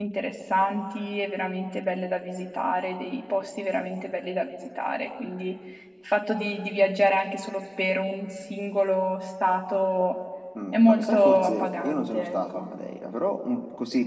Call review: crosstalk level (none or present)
present